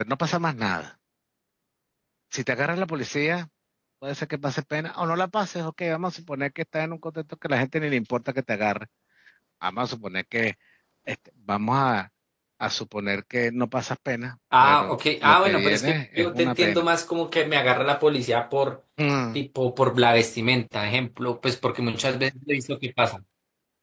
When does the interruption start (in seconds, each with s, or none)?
14.5 s